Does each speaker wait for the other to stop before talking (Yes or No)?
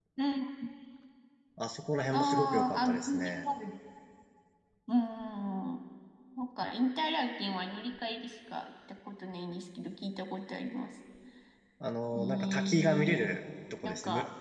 No